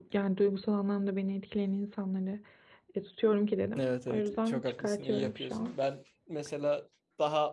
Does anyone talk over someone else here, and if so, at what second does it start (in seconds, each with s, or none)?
3.8 s